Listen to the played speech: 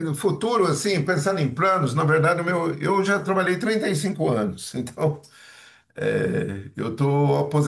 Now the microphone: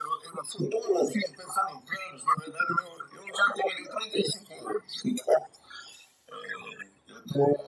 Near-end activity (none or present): none